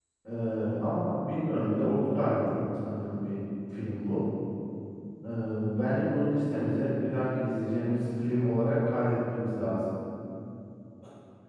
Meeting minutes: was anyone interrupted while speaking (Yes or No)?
No